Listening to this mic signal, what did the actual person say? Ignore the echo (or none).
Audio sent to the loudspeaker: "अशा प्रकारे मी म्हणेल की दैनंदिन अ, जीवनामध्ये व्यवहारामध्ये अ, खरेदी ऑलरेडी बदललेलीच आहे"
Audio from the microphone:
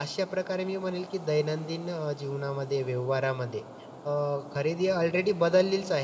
none